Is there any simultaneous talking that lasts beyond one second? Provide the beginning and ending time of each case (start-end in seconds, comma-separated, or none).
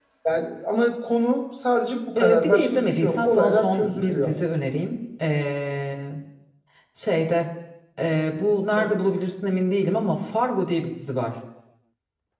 2.1-4.3